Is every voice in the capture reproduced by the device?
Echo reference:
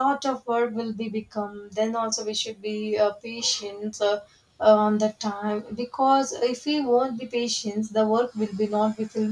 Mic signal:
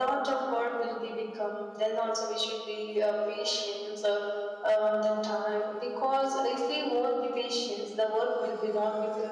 Yes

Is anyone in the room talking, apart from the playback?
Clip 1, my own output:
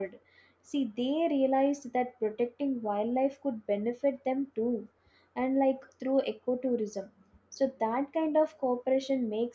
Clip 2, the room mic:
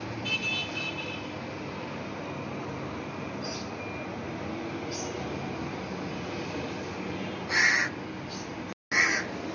No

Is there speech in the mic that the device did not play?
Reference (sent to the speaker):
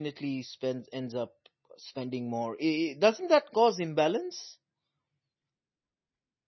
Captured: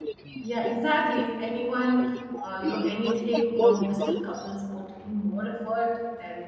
Yes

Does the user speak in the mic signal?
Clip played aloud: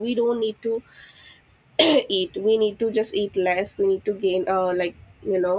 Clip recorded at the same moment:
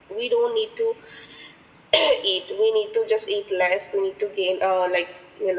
No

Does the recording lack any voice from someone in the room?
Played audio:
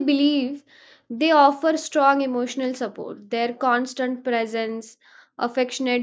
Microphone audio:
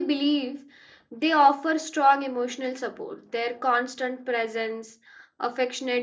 Yes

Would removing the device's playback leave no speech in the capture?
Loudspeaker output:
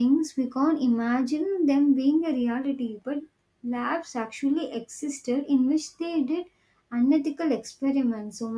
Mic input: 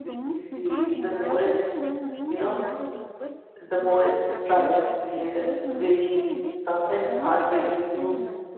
No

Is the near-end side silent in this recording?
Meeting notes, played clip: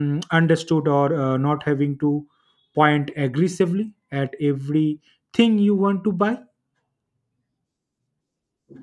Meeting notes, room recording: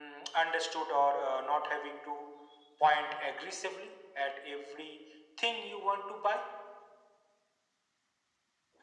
Yes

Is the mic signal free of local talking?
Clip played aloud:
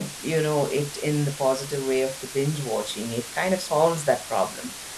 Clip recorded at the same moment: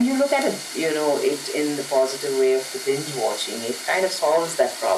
Yes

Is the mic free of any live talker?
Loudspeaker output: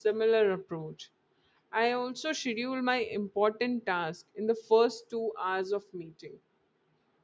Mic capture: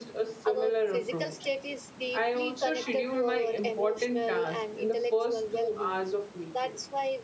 No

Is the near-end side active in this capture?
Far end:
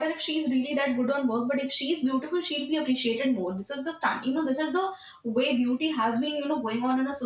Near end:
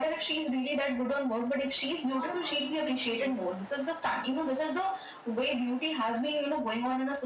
Yes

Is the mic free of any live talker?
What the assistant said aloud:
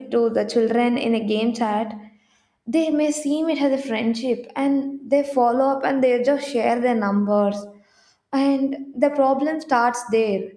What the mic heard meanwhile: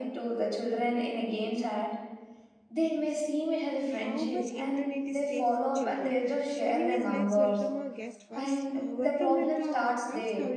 No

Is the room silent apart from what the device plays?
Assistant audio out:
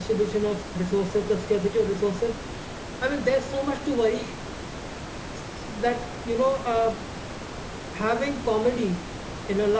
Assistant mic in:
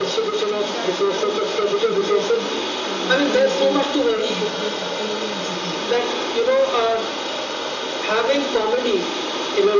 No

